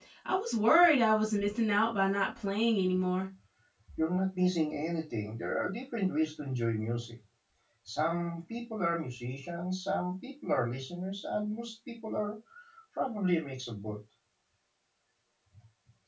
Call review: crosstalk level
none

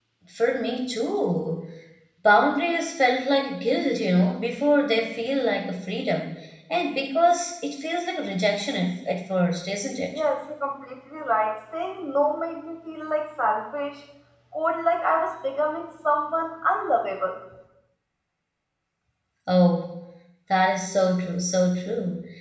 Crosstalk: none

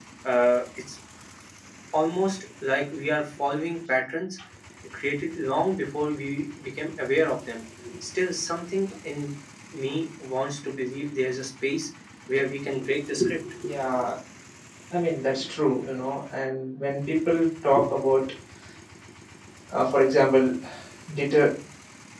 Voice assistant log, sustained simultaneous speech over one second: none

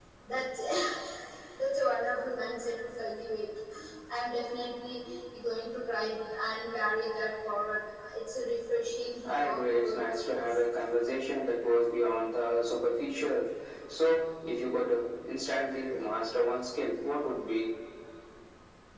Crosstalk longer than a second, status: present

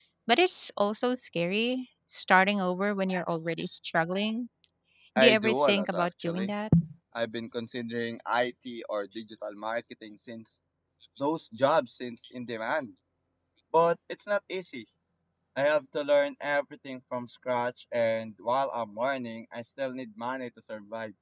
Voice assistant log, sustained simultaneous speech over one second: present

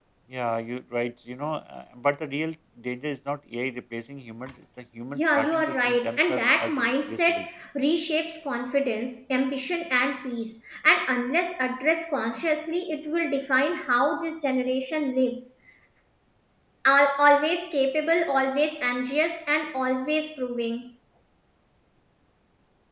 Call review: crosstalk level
present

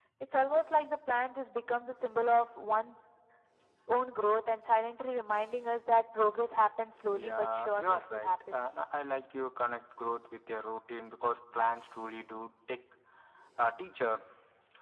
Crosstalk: present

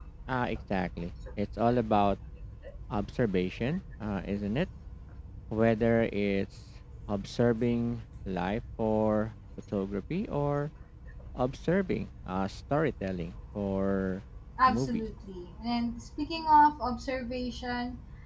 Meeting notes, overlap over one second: none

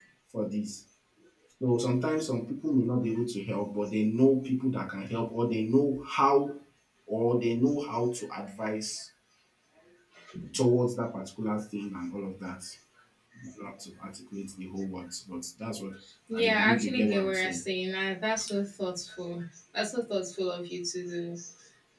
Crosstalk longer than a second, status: present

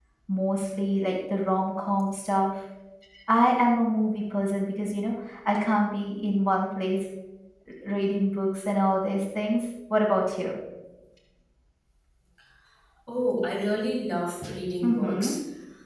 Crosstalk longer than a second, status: none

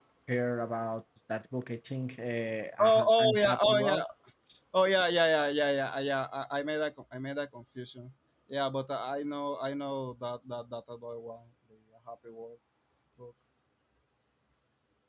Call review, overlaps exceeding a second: present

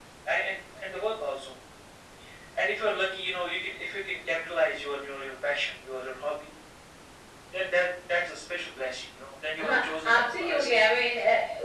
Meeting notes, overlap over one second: present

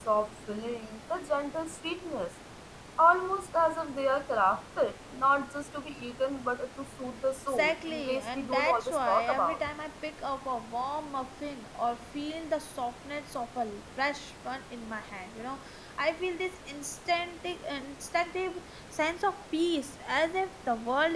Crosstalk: present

